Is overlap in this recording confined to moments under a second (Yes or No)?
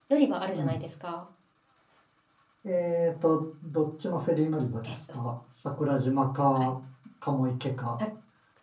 Yes